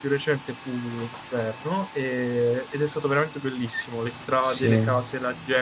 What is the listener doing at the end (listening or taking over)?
listening